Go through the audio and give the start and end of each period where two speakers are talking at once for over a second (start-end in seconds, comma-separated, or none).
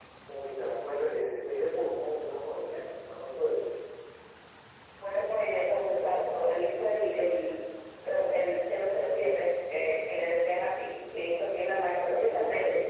none